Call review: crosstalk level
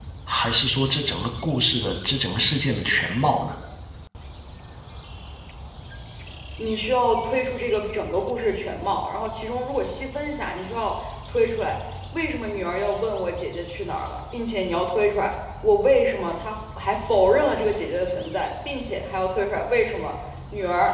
none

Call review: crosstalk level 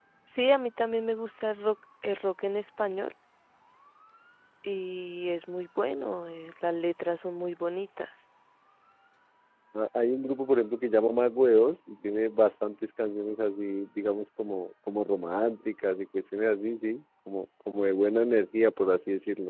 none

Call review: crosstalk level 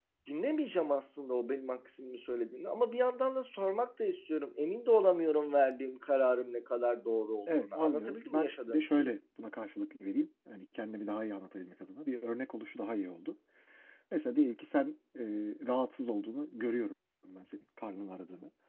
present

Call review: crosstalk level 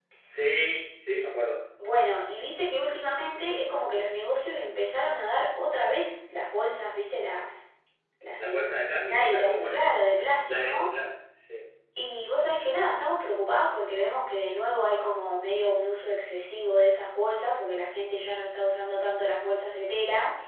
present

